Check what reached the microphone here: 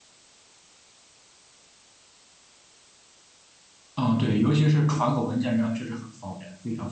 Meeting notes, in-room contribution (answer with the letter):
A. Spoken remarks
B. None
A